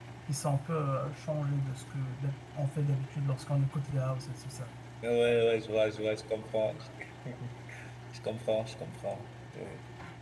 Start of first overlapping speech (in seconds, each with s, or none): none